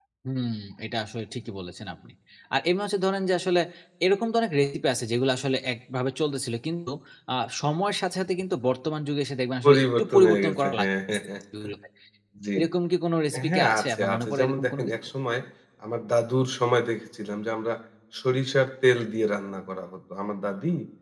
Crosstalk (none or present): present